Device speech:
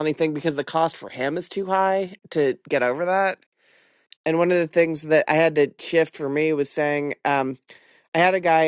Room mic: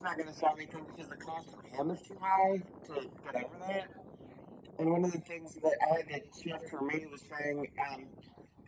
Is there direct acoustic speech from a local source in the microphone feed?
No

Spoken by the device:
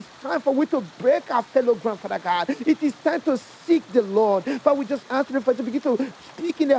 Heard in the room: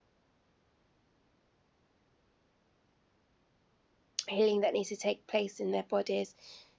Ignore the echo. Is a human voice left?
Yes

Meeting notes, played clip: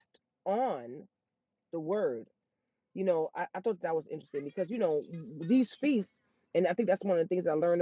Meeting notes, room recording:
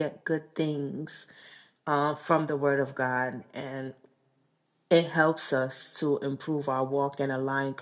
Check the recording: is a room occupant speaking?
Yes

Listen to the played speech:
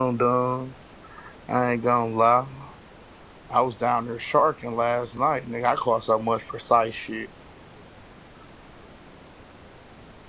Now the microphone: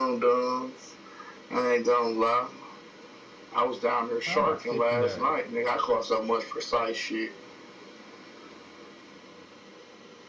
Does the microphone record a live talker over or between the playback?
Yes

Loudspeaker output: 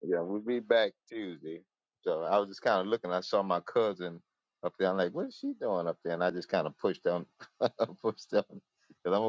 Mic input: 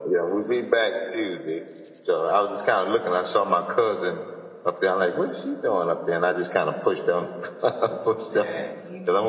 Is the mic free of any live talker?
No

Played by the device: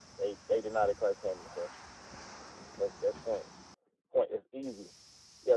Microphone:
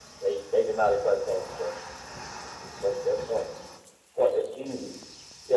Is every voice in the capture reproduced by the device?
Yes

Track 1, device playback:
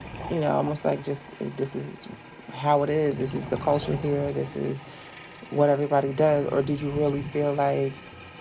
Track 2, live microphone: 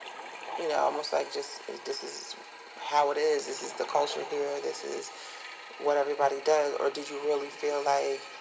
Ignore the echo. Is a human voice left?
No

